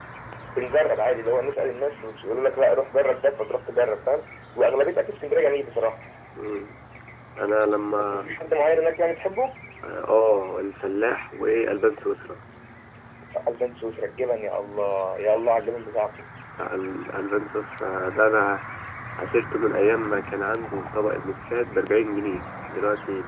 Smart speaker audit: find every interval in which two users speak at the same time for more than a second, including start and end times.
none

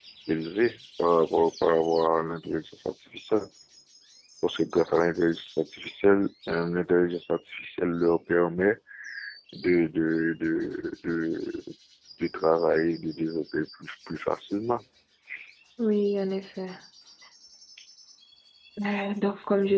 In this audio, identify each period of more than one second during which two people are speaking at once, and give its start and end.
none

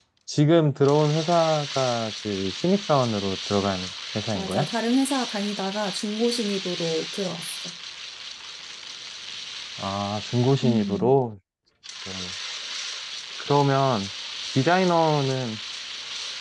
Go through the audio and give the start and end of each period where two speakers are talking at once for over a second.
none

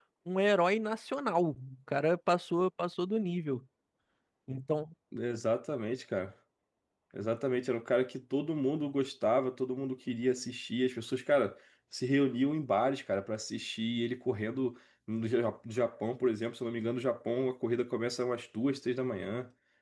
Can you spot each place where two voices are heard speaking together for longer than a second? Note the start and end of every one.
none

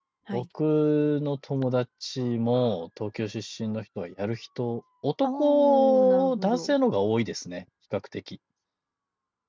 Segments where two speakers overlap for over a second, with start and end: 5.2-6.7

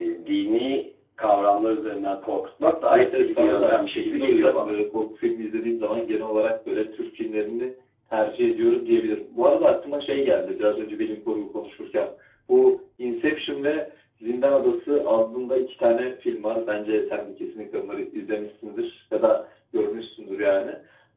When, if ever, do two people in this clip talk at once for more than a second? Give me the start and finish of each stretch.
2.9-4.7

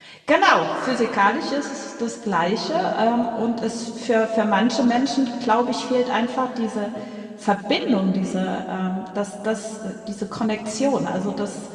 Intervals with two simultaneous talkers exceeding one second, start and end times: none

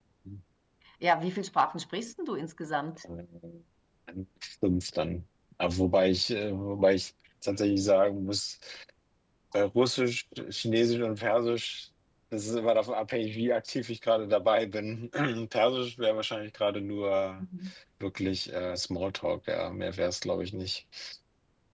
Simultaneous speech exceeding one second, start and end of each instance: none

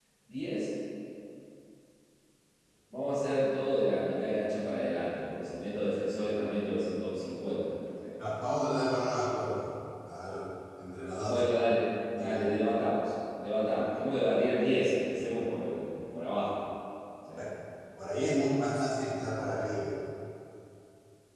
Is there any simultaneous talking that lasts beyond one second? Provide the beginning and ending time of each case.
none

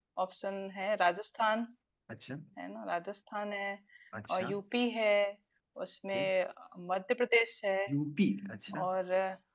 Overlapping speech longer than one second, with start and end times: none

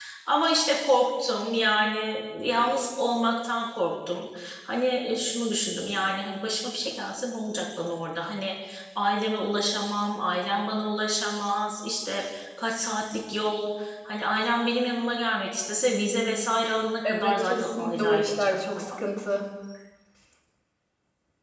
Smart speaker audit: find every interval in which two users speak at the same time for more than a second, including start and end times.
17.1-18.9

